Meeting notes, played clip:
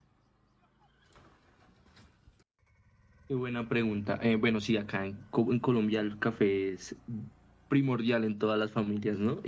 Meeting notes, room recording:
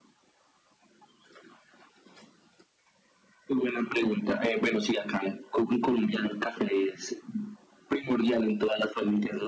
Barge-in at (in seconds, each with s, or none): none